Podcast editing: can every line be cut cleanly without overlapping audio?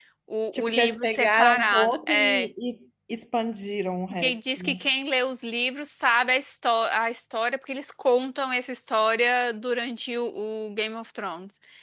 No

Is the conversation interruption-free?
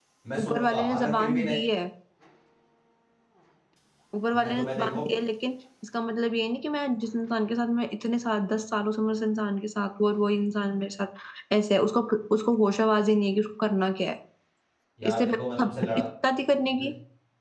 No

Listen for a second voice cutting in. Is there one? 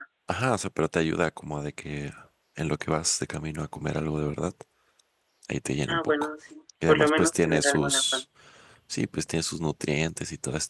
Yes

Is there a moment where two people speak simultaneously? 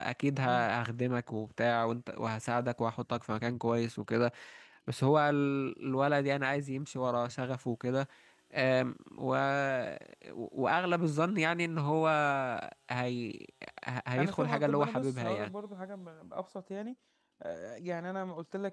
Yes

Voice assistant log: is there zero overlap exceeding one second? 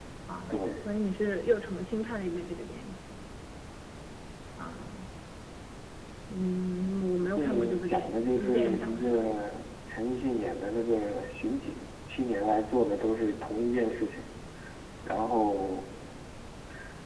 No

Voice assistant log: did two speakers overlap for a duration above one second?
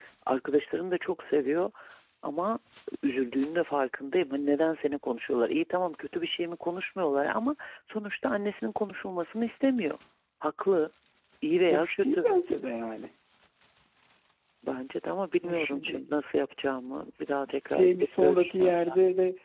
Yes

